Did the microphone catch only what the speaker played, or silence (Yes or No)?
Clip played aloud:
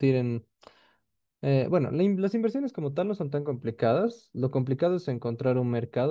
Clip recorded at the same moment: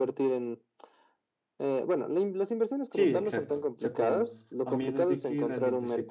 No